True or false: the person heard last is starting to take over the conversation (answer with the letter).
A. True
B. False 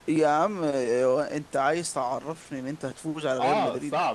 A